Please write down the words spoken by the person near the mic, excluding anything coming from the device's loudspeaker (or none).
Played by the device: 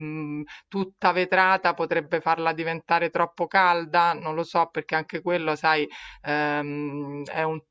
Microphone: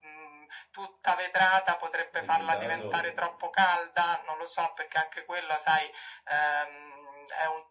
Nel mio caso.